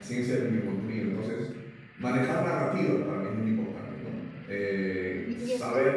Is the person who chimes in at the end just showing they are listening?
No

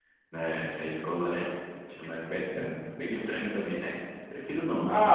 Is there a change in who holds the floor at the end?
Yes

